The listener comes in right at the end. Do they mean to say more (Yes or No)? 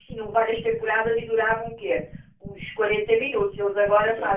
Yes